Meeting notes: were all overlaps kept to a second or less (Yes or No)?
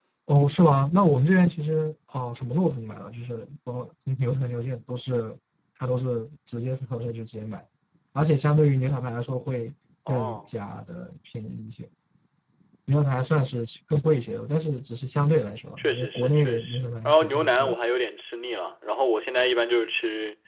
No